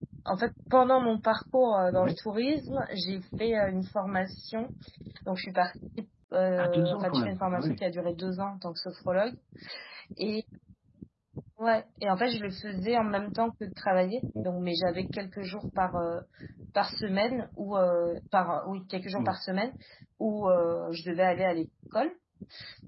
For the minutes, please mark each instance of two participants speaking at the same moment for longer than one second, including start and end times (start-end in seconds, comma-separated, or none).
6.6-7.8